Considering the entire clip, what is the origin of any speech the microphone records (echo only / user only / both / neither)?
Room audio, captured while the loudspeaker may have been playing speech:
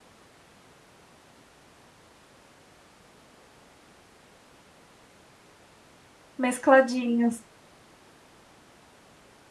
user only